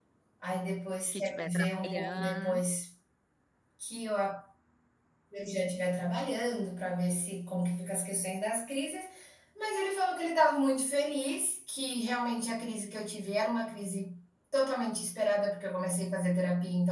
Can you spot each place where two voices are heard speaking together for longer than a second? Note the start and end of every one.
1.1-2.6

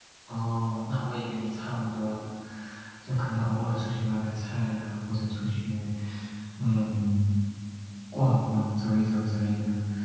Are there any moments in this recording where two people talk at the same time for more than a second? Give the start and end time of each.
none

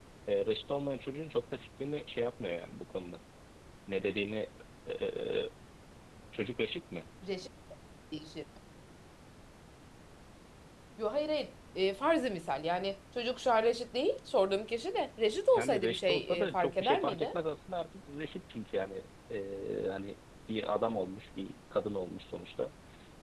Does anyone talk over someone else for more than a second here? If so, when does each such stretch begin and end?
15.5-17.4

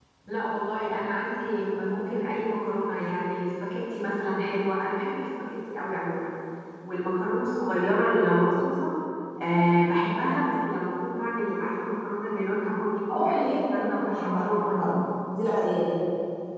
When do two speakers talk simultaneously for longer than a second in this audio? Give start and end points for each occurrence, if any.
13.2-14.9

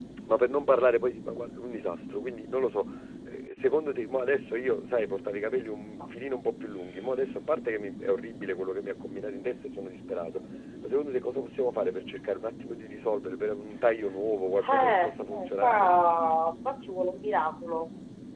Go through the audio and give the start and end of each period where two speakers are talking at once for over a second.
14.6-15.9

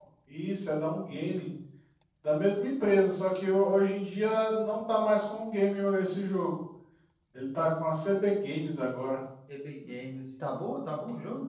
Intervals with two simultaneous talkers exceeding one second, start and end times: none

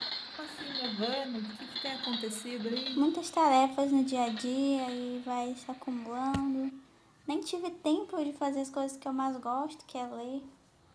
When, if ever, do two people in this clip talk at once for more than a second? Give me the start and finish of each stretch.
none

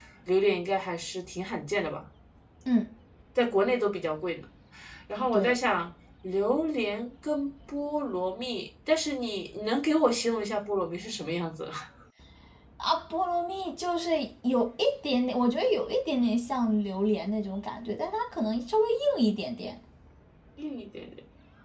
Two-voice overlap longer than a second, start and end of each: none

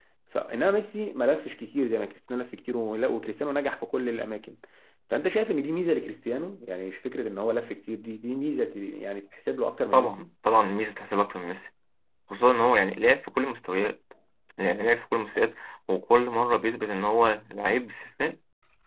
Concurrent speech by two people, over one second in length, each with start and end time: none

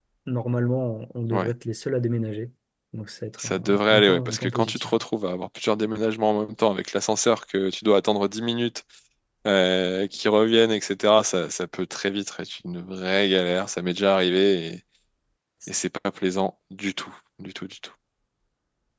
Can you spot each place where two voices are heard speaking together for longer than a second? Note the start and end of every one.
3.4-5.0

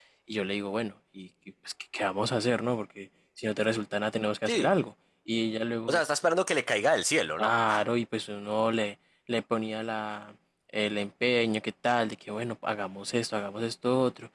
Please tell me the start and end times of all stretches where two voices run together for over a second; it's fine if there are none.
none

